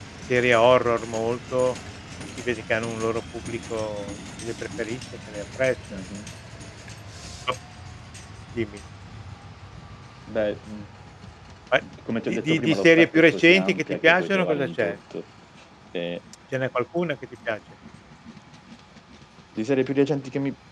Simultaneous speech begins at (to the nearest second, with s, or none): 12 s